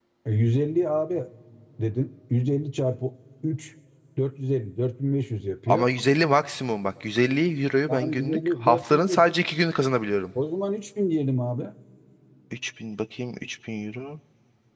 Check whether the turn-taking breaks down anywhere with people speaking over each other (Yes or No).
Yes